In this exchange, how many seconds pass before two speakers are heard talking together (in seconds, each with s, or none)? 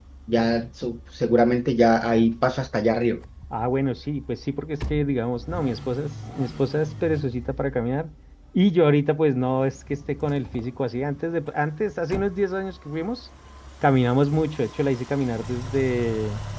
none